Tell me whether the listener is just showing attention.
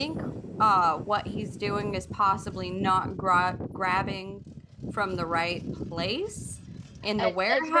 No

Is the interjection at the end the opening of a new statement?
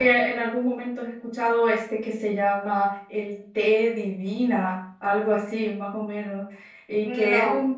No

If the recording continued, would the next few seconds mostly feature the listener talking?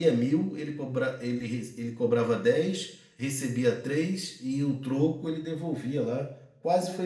Yes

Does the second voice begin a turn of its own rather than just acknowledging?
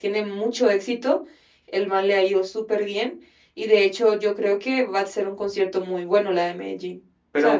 Yes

